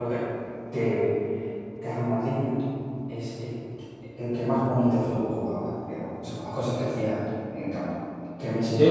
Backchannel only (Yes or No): No